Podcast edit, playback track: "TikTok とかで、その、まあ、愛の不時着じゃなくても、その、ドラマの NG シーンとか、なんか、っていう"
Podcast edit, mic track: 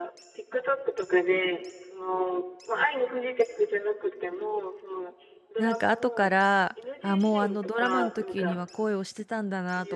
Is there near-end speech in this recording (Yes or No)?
Yes